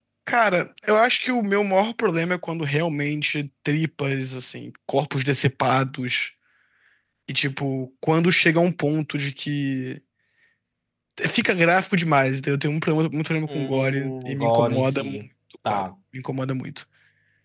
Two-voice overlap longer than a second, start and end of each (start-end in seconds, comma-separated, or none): 13.5-15.2